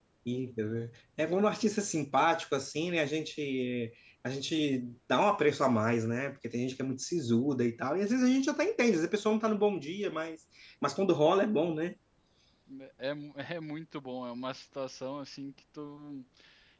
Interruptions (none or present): none